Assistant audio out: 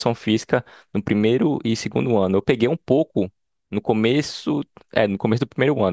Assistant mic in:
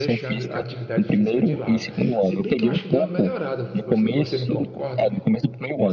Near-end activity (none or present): present